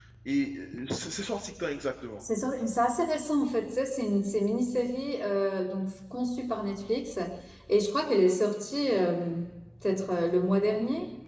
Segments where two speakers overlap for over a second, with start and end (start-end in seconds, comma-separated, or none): none